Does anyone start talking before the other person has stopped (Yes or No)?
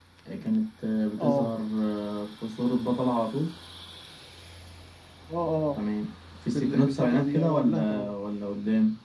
Yes